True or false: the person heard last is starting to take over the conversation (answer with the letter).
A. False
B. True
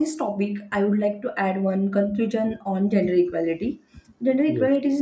A